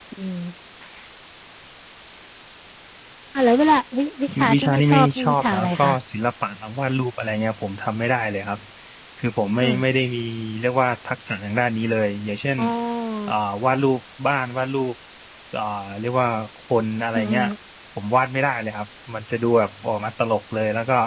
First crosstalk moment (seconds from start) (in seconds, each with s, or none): 4.5 s